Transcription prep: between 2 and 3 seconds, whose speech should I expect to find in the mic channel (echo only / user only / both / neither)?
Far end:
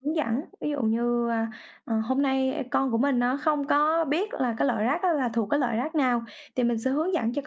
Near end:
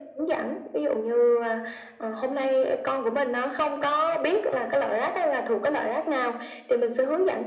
echo only